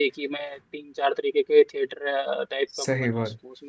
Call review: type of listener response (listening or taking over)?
listening